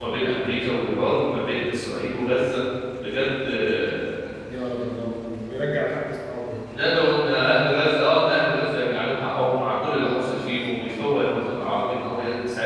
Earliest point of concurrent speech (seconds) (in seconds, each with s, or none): none